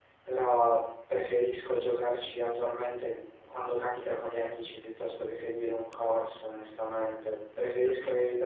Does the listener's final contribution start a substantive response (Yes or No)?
No